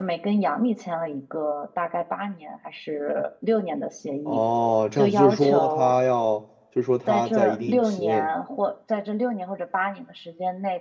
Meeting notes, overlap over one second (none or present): present